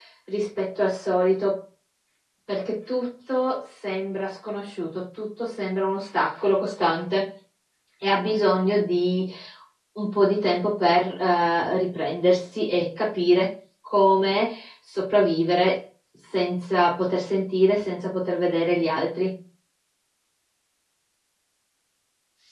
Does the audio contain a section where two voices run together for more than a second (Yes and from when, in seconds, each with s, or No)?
No